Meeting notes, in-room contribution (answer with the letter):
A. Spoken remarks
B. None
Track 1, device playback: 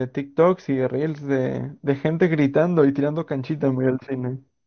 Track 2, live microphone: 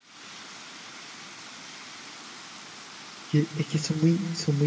A